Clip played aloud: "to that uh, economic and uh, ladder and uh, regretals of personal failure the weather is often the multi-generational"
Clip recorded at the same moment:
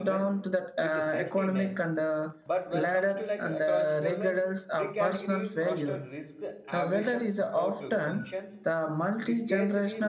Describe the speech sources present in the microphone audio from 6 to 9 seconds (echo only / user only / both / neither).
both